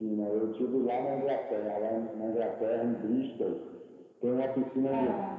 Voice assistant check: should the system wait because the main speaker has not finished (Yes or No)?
Yes